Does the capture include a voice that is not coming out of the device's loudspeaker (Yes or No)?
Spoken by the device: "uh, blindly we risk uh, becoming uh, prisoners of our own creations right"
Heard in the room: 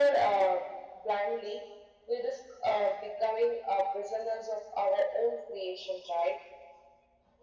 No